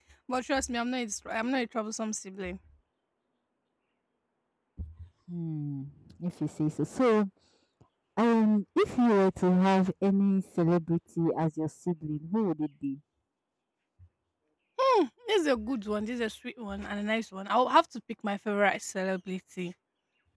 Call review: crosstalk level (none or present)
none